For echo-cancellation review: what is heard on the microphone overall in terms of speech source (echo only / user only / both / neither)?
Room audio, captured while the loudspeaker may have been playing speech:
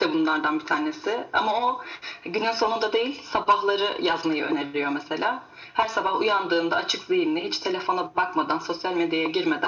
echo only